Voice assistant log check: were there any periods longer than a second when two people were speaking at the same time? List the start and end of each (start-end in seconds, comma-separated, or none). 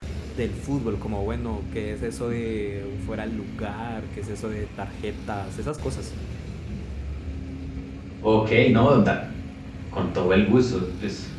none